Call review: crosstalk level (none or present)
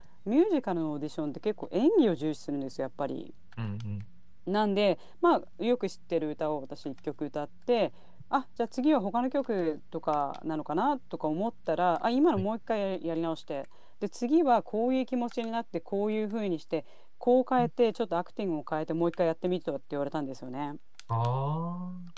none